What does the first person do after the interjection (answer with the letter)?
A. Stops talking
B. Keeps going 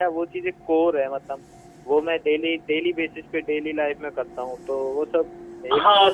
A